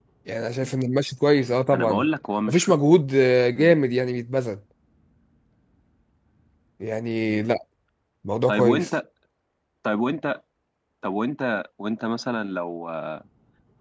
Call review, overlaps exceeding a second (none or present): none